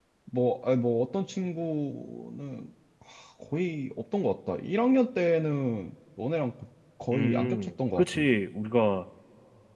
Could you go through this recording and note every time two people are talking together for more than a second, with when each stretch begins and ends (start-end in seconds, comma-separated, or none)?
7.1-8.4